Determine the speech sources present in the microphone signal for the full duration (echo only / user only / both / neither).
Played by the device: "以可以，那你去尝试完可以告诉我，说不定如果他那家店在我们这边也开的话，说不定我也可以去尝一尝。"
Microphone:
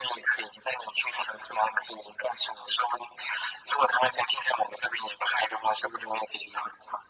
echo only